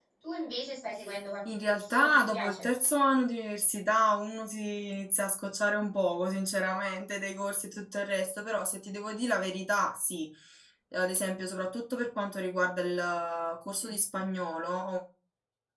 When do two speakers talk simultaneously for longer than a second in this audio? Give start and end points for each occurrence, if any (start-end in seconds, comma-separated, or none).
1.5-2.7